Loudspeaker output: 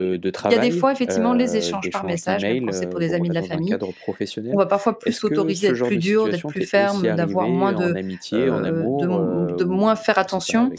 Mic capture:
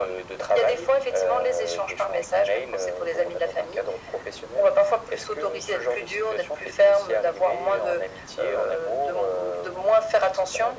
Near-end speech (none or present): none